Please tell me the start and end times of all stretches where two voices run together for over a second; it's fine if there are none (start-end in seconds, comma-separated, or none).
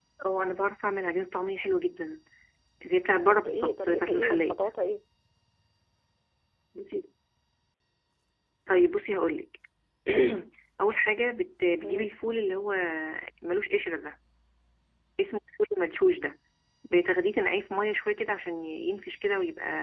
3.3-4.6